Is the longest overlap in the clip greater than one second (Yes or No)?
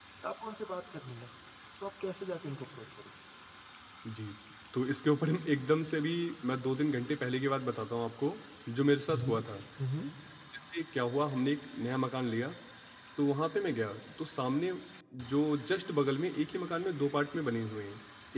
No